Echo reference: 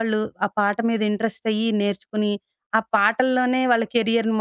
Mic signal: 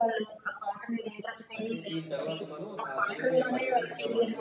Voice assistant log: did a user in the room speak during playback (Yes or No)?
Yes